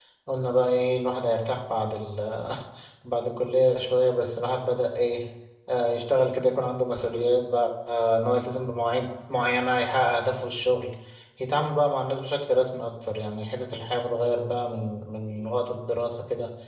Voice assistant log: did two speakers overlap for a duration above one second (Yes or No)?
No